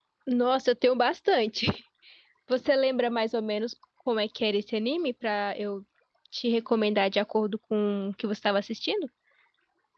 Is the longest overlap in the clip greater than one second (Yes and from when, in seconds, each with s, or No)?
No